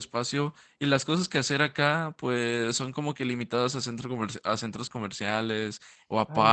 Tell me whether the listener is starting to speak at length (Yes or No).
Yes